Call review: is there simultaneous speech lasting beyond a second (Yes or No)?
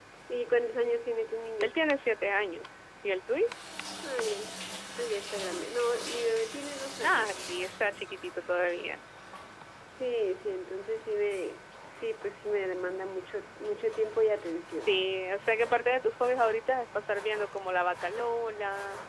No